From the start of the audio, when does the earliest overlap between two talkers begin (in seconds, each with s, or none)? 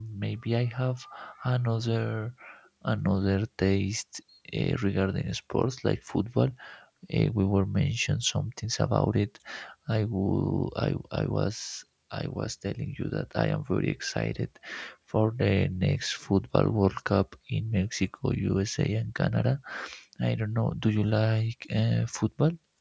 none